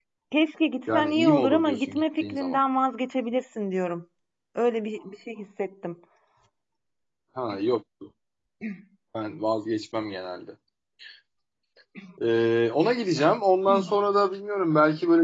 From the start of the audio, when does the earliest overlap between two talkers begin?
0.9 s

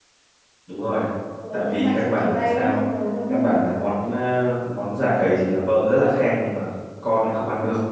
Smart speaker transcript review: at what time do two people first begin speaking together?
1.5 s

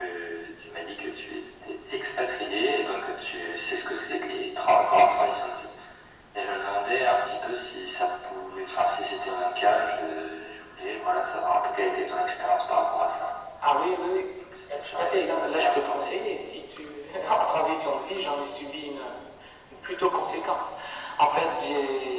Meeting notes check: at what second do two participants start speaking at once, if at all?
14.7 s

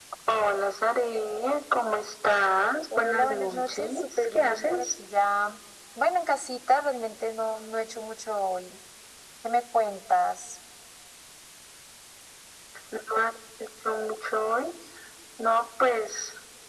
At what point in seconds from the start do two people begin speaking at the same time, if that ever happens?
2.9 s

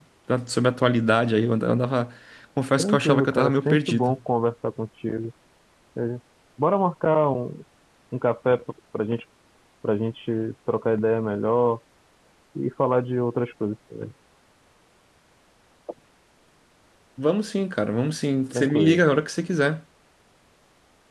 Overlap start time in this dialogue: 2.8 s

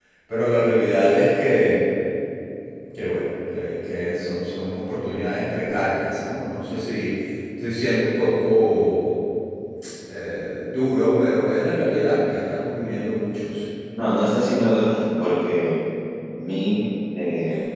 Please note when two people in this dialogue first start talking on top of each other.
none

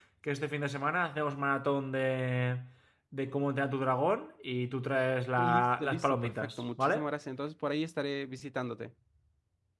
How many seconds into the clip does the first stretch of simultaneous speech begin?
5.4 s

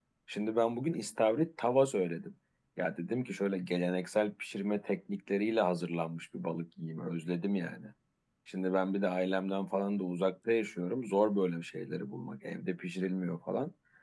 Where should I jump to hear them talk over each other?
none

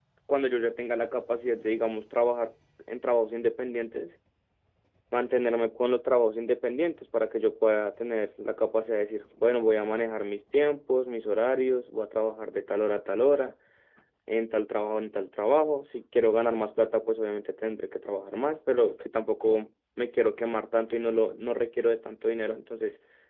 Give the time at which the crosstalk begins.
none

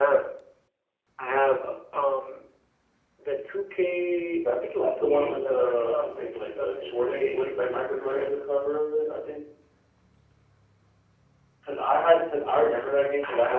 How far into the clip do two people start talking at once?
4.4 s

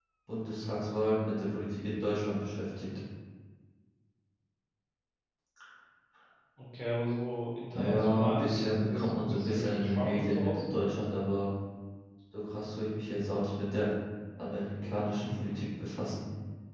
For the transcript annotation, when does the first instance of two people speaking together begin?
7.7 s

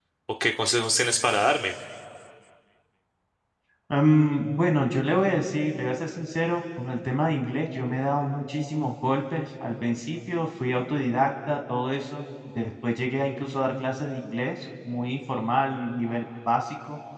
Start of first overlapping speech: none

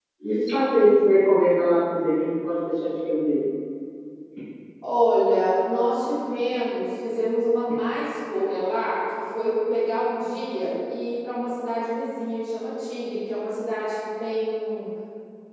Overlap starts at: none

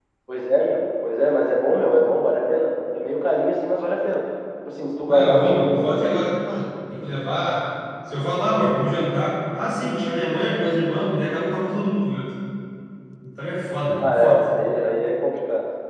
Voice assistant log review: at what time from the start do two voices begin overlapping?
5.0 s

